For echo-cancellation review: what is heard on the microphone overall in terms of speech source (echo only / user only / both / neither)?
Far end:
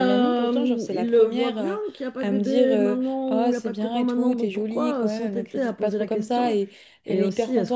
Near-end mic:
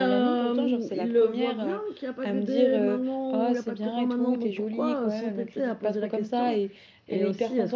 echo only